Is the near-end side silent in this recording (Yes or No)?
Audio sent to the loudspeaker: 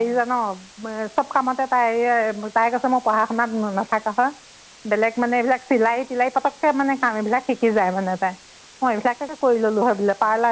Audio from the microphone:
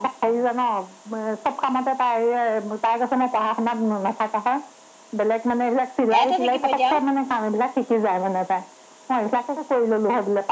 No